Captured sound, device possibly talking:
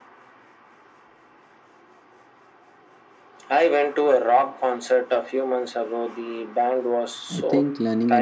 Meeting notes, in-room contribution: present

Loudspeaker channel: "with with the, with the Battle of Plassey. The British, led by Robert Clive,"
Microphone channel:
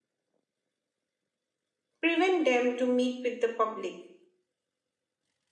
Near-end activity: present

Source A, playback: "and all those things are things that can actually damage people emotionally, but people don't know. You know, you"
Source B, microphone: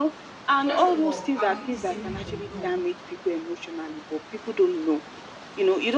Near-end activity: present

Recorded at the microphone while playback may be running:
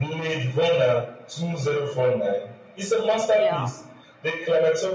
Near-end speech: present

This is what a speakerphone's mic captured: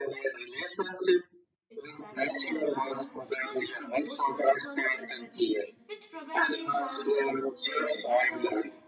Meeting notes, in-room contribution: present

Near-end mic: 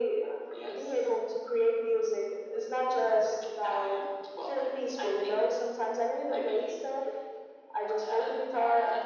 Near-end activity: present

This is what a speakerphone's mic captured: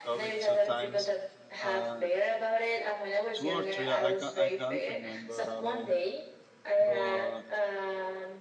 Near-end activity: present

